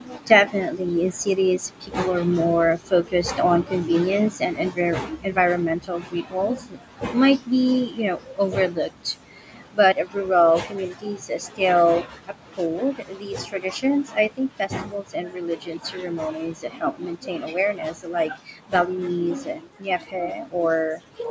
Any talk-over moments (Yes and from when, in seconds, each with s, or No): No